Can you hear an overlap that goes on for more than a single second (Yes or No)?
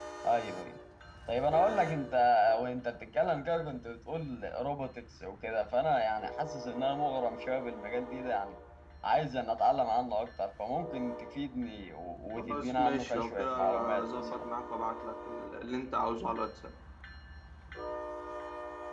Yes